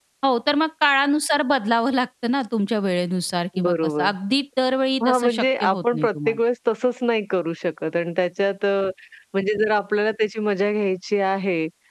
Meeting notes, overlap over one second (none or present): present